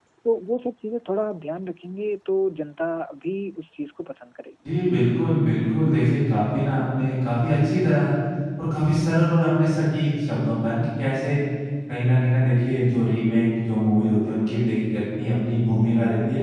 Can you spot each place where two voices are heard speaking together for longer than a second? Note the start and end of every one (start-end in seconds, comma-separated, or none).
none